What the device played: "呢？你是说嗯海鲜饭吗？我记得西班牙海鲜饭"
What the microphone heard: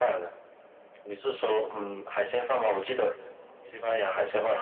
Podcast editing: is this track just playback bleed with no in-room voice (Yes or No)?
Yes